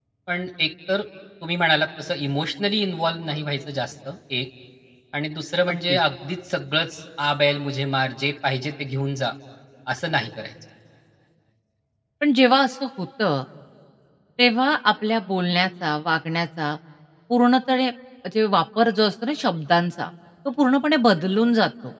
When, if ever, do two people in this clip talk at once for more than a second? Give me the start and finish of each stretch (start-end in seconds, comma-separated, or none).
none